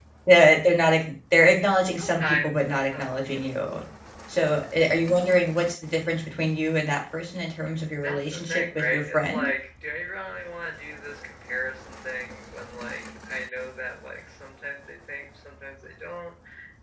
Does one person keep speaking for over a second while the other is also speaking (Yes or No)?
Yes